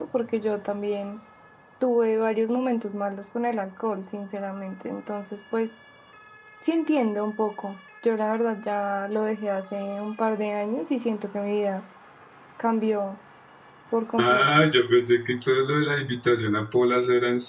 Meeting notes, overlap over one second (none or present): none